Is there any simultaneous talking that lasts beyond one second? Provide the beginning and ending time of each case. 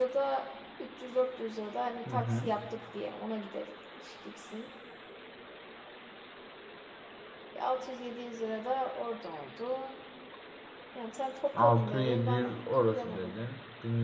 11.6-13.3

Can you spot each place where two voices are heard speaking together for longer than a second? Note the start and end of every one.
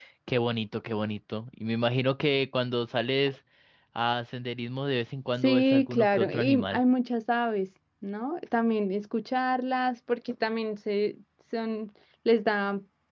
5.4-6.8

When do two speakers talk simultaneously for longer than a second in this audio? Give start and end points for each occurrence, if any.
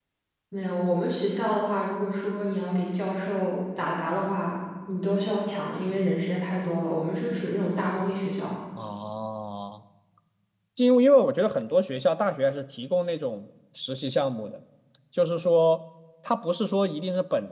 none

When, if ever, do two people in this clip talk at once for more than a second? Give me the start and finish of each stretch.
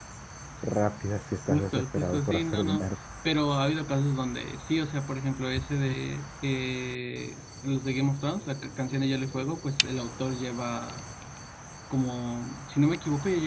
1.5-2.9

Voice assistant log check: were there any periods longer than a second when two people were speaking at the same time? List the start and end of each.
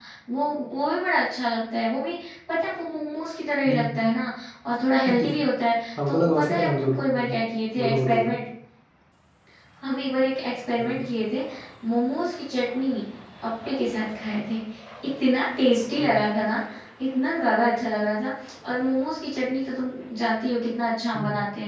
6.1-7.3

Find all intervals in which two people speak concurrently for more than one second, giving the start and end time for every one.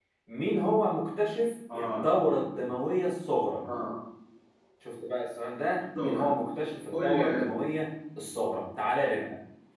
none

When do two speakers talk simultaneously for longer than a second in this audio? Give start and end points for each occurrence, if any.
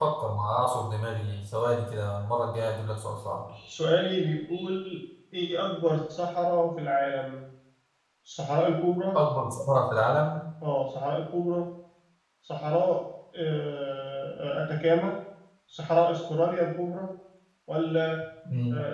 none

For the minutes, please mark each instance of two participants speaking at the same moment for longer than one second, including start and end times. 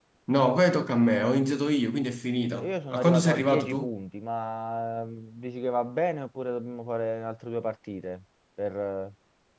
2.5-3.9

